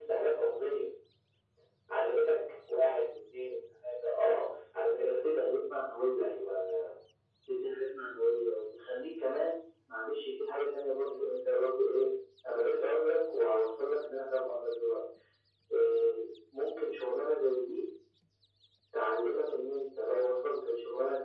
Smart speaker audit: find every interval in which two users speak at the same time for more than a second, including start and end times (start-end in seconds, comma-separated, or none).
none